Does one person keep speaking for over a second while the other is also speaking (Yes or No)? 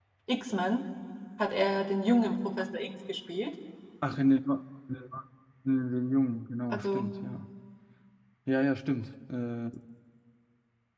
No